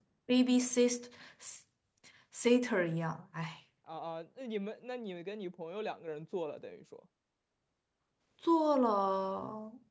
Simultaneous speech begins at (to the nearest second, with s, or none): none